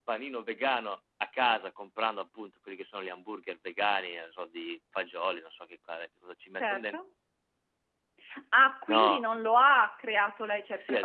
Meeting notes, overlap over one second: none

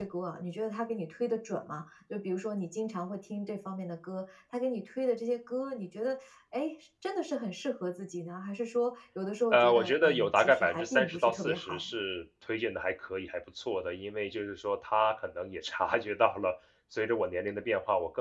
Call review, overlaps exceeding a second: present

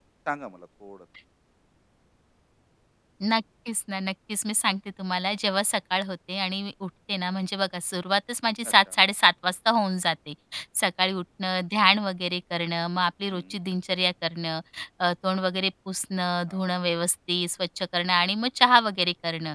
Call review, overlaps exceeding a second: none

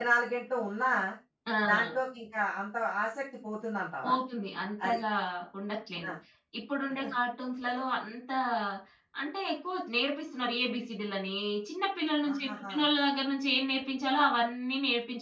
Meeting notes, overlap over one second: none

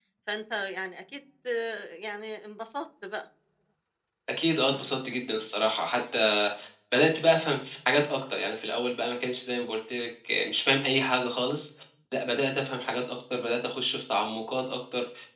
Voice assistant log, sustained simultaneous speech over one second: none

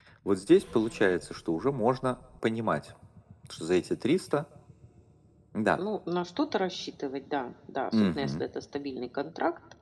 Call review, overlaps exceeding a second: none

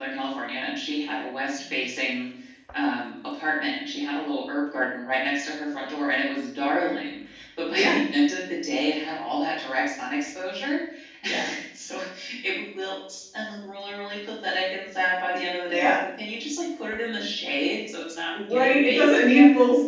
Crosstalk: present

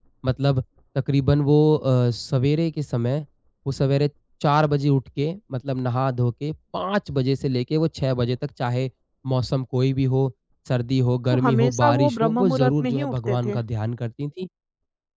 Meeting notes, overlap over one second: present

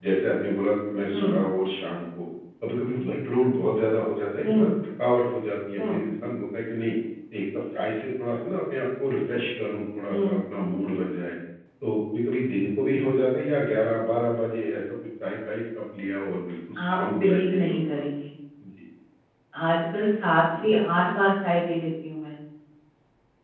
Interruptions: present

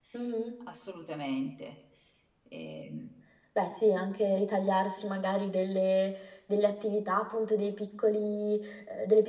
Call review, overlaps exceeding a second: none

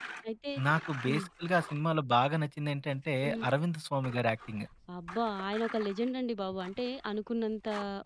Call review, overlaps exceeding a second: none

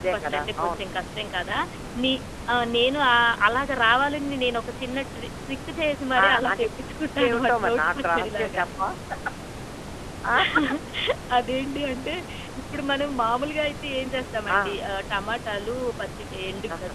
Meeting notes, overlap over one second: present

